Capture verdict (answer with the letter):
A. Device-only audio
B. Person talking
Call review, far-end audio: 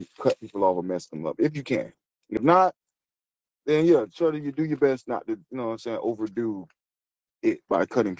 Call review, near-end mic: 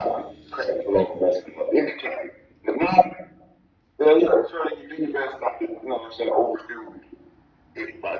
A